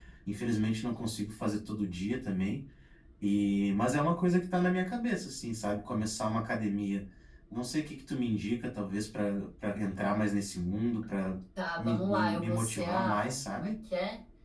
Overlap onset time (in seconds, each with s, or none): 11.8 s